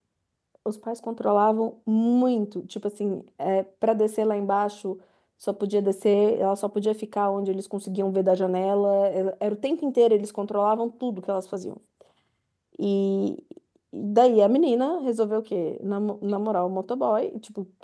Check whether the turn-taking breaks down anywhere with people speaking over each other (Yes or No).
No